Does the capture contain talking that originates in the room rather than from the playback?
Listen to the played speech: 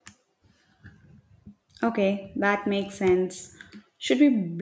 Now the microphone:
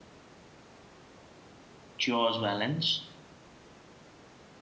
Yes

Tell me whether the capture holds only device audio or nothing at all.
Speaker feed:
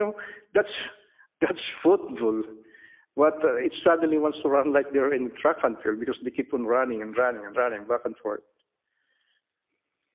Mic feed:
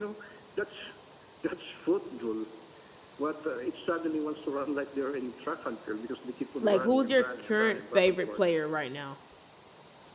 No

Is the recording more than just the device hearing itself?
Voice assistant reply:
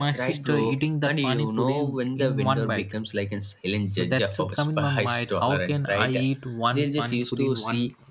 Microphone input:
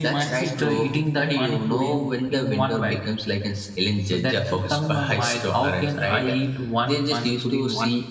No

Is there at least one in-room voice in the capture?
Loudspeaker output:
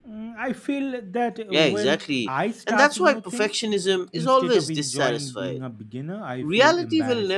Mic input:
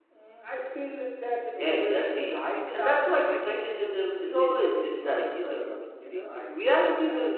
Yes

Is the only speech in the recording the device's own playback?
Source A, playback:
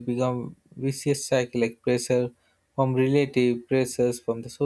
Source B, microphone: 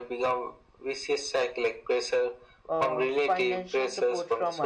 No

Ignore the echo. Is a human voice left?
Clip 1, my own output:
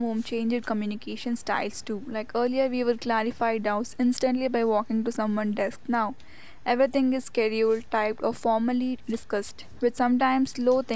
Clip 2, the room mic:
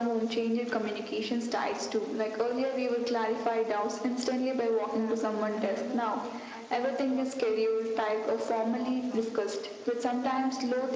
Yes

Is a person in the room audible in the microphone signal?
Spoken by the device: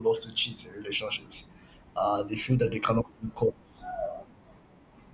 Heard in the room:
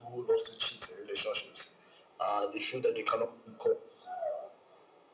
No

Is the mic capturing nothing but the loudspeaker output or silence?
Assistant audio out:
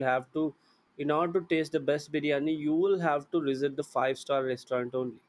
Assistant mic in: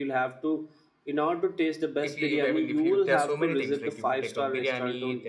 No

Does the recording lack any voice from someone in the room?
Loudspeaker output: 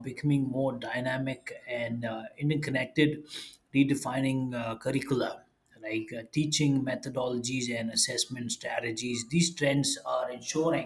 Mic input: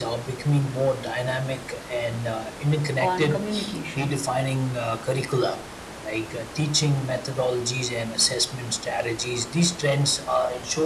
No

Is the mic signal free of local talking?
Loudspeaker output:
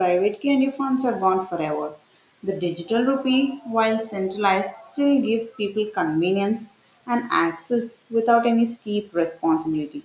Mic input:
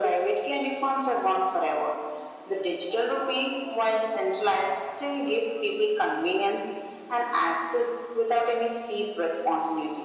Yes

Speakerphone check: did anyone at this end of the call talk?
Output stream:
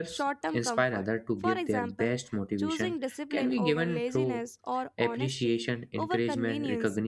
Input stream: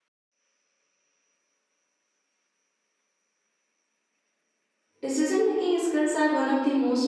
Yes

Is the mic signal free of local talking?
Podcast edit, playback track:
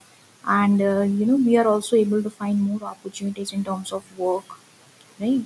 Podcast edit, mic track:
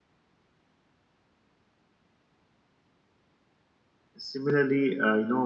No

